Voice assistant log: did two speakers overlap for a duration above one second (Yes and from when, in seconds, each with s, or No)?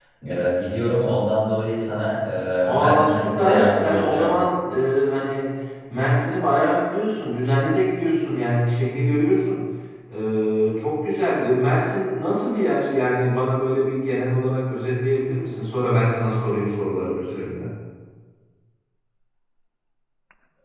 Yes, from 2.8 s